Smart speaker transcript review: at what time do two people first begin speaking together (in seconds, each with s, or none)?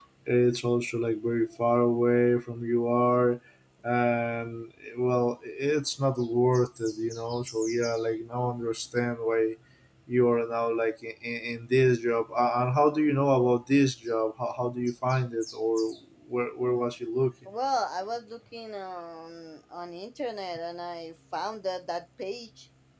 none